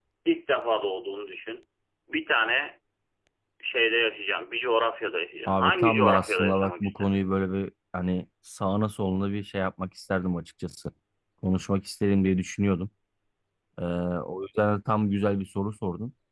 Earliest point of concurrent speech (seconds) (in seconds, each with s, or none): 5.5 s